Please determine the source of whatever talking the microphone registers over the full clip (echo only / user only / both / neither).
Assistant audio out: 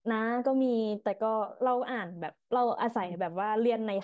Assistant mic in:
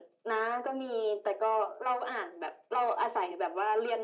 echo only